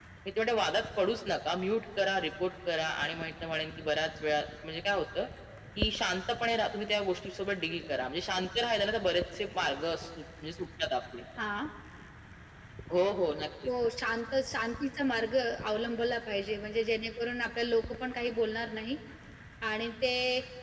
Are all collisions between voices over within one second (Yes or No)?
Yes